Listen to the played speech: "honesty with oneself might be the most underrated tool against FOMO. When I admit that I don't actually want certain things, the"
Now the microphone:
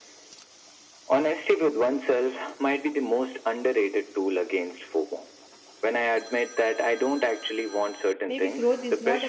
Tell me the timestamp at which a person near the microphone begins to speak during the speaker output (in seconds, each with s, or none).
8.3 s